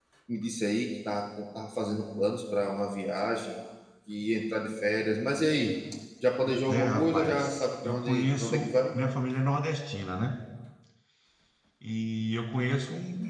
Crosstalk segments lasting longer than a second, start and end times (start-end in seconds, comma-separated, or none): 6.4-8.7